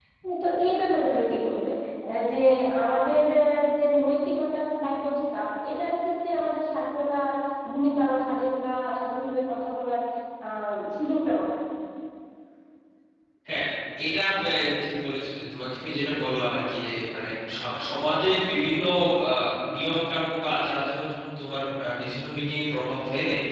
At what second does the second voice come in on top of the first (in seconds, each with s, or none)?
none